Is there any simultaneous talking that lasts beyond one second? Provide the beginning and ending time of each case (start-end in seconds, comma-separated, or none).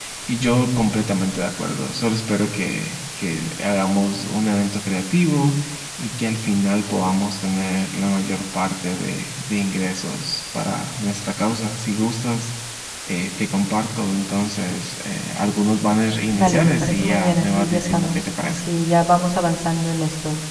16.4-18.6